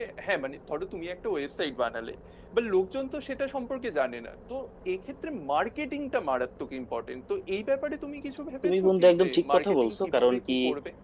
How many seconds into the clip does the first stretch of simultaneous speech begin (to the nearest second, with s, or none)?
9 s